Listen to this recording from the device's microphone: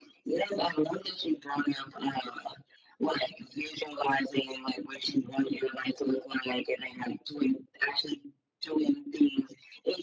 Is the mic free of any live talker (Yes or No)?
Yes